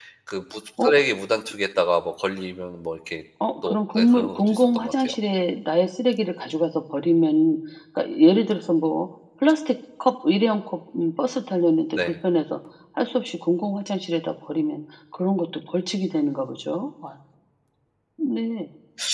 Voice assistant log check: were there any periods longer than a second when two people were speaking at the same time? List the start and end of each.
3.6-5.1

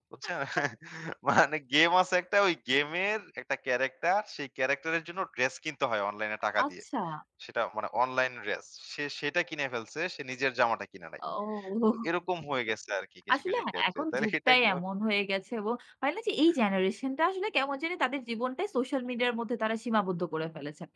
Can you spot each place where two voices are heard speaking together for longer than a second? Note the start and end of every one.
13.3-14.7

